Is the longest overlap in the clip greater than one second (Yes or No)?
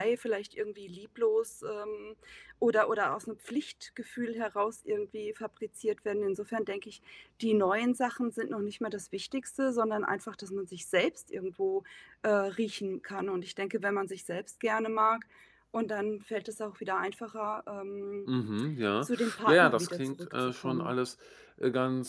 Yes